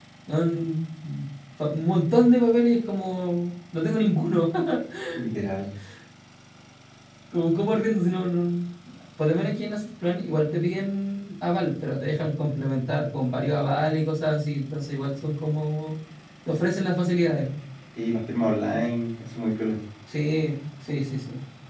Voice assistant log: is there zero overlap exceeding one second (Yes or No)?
Yes